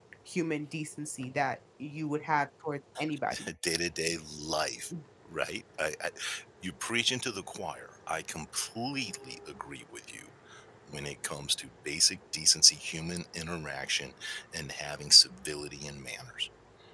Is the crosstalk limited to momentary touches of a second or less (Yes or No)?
Yes